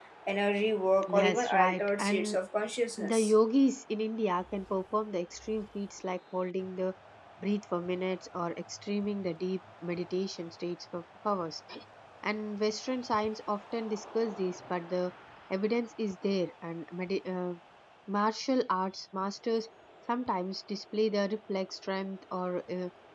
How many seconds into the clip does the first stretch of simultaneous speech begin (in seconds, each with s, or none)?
1.1 s